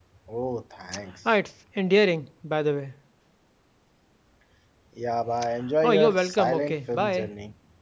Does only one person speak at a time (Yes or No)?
No